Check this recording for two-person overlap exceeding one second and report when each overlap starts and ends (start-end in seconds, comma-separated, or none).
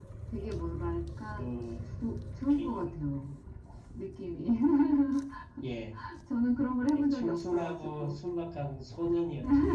6.9-8.2